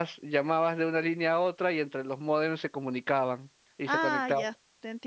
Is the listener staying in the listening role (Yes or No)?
No